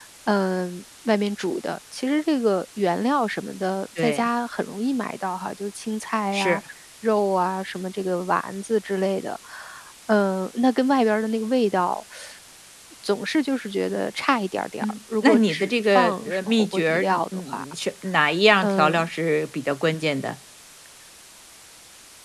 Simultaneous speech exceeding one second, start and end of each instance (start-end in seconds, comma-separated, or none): 14.8-17.6